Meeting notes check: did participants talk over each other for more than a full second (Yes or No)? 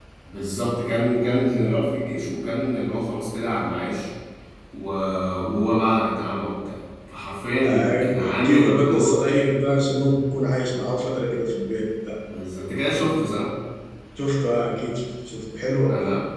Yes